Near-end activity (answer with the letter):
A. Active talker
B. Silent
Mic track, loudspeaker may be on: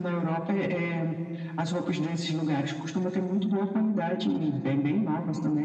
B